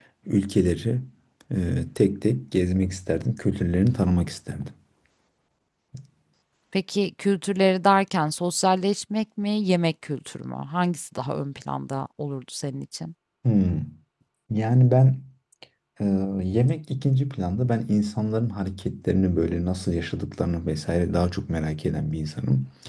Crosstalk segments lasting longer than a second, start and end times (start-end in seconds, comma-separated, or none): none